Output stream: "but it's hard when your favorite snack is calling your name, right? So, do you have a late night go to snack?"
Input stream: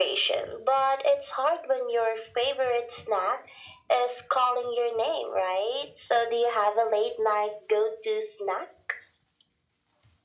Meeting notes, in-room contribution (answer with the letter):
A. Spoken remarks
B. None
B